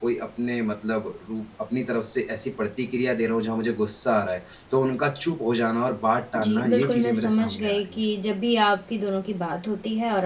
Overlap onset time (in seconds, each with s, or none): 6.3 s